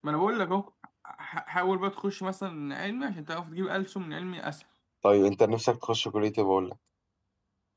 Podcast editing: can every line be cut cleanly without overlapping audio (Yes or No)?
Yes